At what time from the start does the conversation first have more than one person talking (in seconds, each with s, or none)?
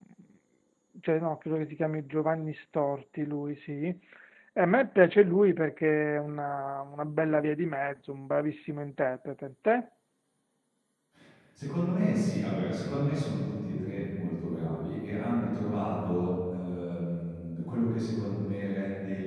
none